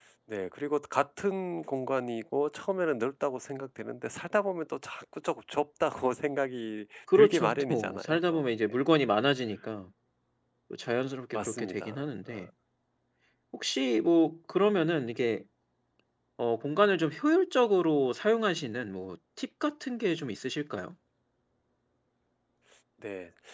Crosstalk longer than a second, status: present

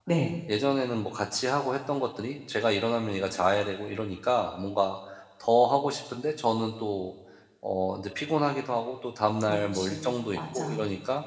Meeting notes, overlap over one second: present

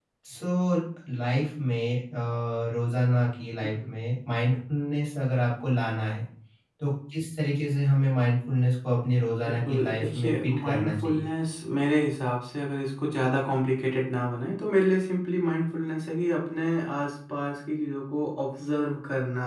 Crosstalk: present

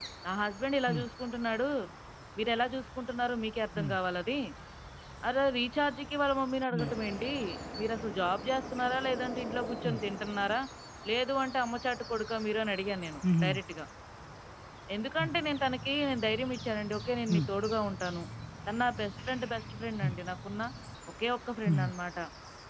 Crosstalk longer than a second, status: none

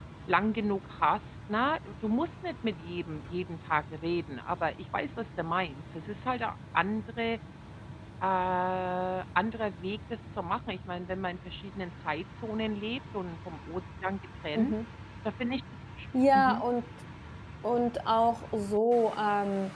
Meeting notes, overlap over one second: none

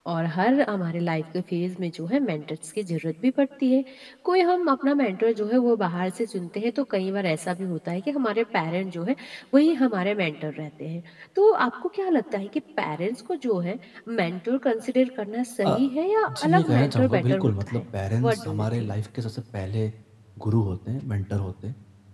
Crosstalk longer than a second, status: present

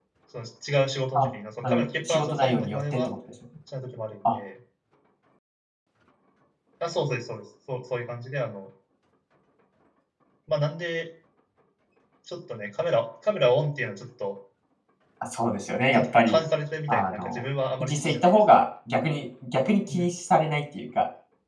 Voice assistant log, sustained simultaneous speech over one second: present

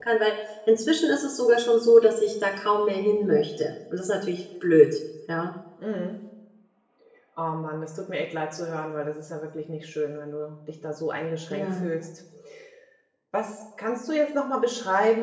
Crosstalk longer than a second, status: none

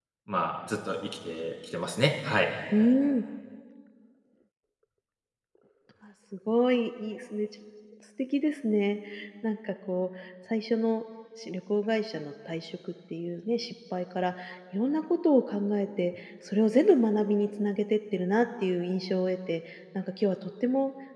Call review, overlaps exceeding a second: none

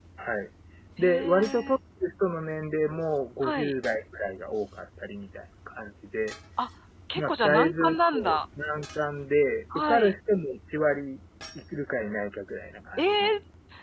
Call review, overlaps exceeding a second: present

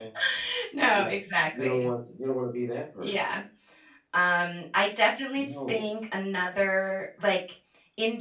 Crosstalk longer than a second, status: none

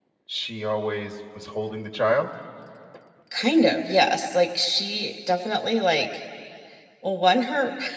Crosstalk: none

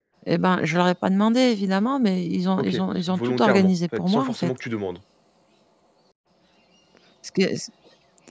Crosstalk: present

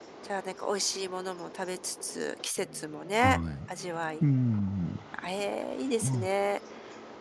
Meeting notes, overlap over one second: none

